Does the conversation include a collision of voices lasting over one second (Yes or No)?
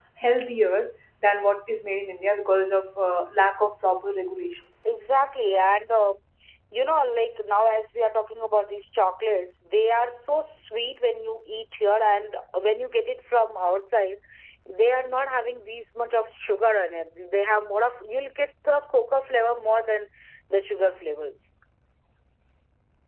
No